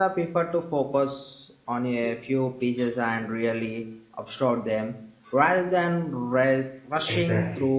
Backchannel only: No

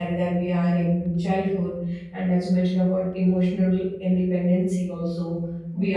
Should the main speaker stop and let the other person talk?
No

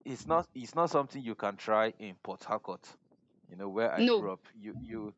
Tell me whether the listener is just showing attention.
Yes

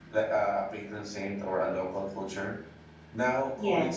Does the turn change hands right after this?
No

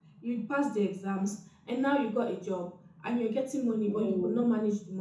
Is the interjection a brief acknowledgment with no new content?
Yes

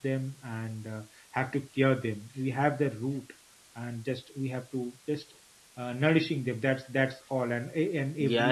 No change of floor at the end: No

